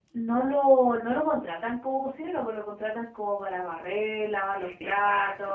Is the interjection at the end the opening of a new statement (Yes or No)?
No